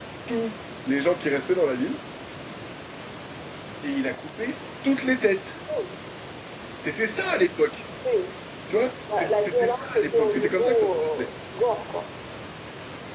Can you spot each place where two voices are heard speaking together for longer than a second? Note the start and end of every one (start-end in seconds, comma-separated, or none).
9.2-11.3